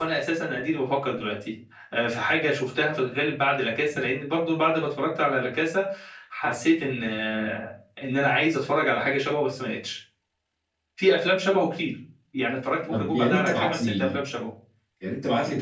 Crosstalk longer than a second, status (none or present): present